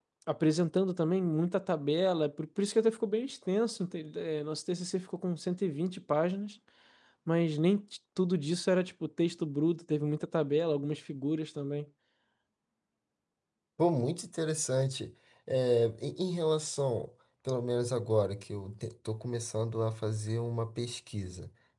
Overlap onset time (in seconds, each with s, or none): none